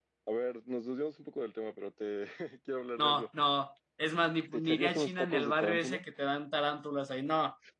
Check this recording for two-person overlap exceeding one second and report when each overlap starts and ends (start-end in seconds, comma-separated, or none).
4.5-6.0